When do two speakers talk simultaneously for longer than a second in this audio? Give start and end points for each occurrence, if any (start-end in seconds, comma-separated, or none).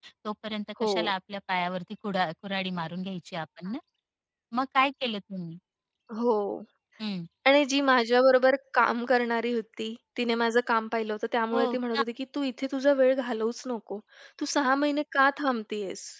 none